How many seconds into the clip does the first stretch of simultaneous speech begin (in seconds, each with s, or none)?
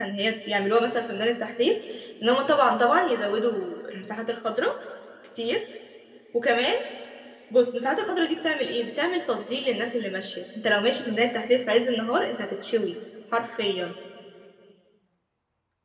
none